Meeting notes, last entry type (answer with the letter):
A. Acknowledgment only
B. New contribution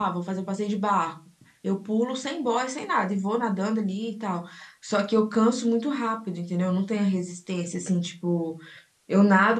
A